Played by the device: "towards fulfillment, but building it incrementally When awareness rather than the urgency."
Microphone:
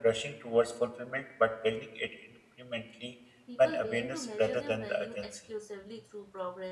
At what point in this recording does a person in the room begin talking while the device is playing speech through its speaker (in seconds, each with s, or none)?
3.4 s